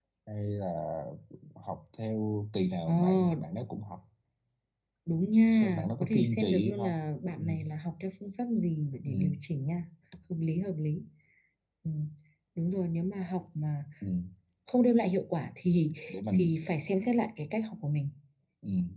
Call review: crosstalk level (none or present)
present